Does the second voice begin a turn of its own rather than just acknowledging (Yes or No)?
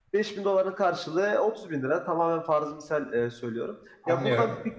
No